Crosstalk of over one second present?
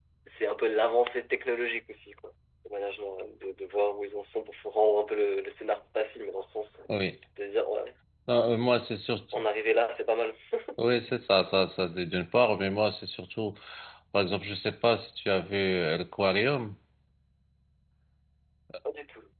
No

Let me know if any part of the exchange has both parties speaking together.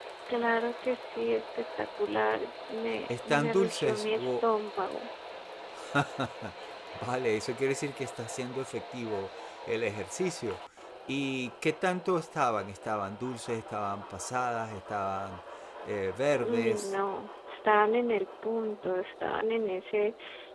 Yes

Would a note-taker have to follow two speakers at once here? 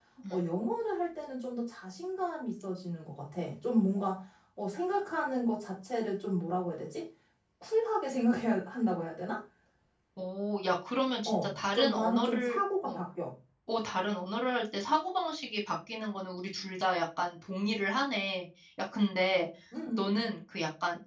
Yes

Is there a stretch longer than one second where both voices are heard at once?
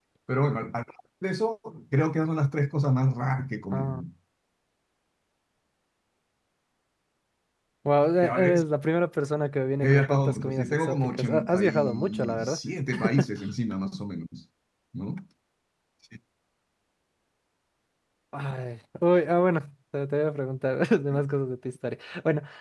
Yes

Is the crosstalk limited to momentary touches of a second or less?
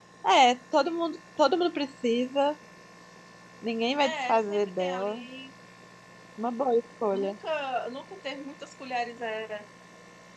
No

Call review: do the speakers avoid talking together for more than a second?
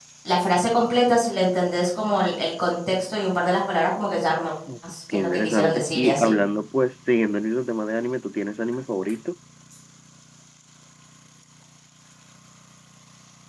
No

